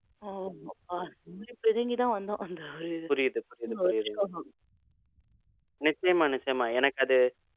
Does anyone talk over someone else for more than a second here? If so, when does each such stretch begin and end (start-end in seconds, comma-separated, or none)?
none